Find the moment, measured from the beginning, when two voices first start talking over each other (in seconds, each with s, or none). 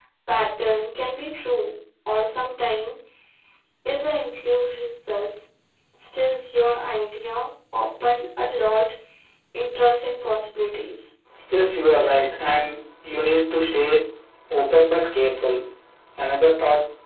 none